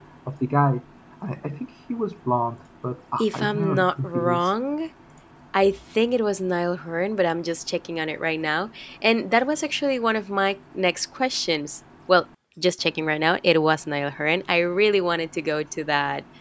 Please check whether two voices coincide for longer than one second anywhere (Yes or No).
Yes